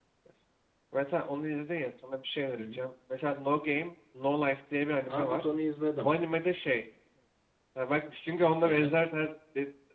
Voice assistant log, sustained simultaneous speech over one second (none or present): none